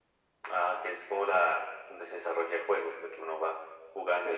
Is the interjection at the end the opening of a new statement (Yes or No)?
Yes